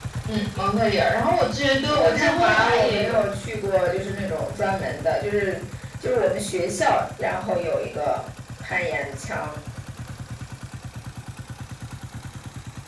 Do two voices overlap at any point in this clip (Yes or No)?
Yes